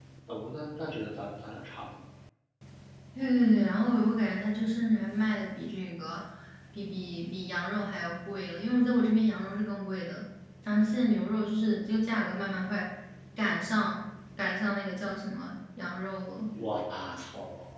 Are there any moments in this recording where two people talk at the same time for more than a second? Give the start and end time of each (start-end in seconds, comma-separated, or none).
none